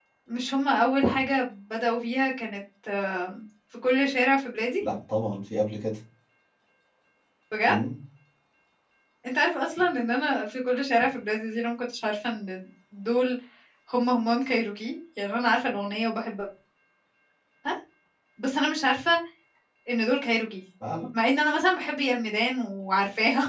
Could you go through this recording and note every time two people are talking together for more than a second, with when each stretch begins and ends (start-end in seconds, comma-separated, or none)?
none